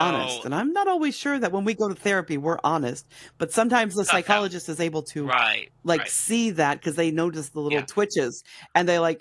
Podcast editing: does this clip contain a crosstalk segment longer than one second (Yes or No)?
No